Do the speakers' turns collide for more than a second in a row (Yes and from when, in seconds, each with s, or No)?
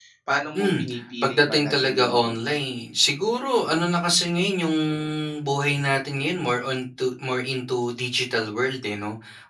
Yes, from 0.6 s